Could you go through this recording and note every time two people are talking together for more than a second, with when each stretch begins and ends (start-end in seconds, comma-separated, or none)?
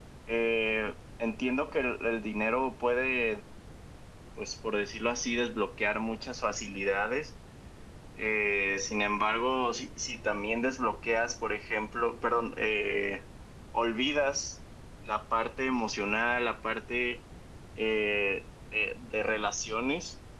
none